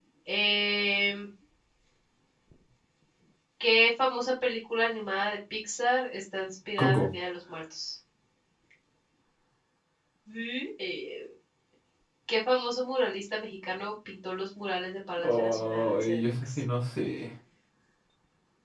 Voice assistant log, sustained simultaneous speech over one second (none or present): present